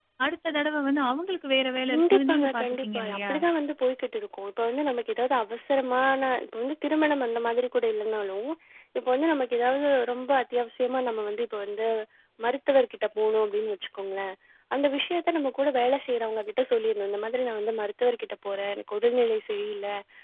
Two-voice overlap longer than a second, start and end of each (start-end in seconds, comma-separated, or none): 1.9-3.3